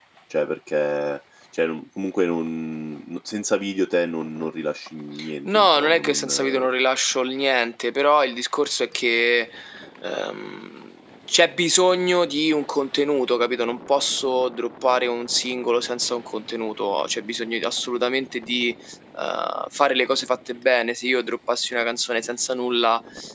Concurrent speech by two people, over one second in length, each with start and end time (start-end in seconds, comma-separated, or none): 5.4-6.7